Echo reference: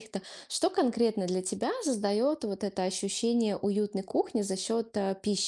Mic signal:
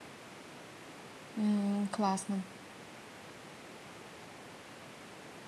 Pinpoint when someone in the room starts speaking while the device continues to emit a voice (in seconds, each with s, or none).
1.3 s